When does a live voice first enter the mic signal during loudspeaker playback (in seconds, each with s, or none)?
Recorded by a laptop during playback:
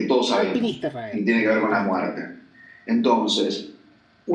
0.3 s